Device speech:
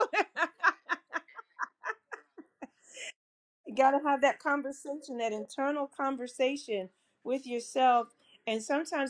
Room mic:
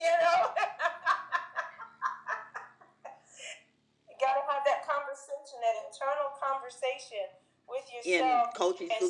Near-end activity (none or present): present